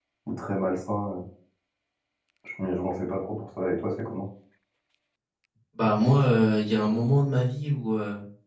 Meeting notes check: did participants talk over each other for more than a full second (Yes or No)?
No